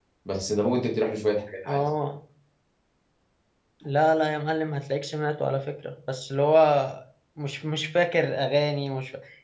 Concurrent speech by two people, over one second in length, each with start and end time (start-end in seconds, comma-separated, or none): none